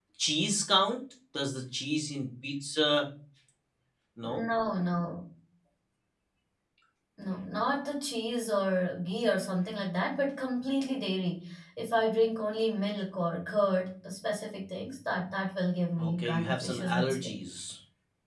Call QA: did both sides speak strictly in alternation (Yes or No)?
No